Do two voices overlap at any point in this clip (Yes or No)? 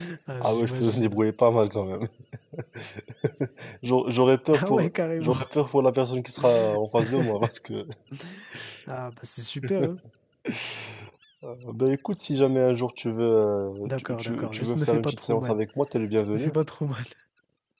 Yes